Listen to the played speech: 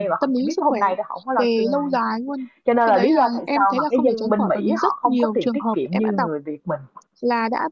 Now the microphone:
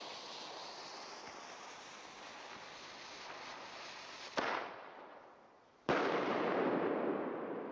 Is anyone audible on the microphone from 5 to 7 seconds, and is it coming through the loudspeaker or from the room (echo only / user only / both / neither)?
neither